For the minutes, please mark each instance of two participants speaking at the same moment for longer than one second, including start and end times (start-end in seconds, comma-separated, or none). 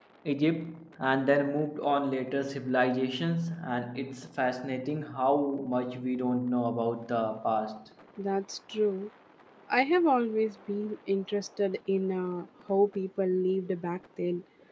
none